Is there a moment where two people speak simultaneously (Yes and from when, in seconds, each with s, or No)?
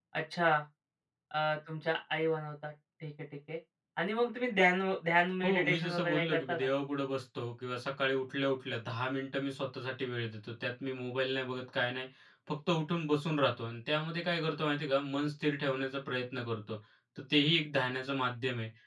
Yes, from 5.4 s